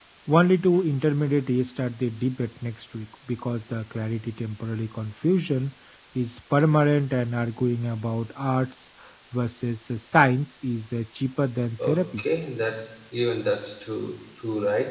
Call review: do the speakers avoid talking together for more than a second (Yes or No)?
Yes